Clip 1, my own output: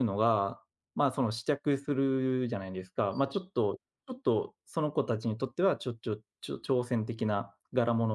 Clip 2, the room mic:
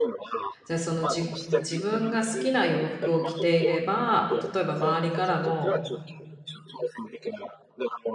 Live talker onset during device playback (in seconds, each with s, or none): 0.7 s